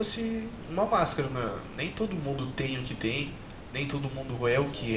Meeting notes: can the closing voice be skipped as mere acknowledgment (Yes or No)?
Yes